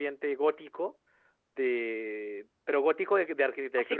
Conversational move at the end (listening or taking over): taking over